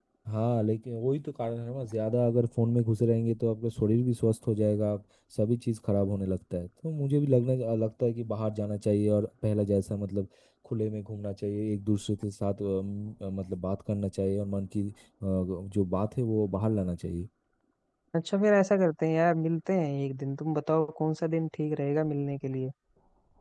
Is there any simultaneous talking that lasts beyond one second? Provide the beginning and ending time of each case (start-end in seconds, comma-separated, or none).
none